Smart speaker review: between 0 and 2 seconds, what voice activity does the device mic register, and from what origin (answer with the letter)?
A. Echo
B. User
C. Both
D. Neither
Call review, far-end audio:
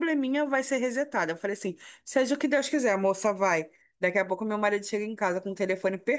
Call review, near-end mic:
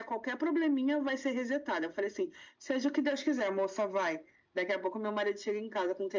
A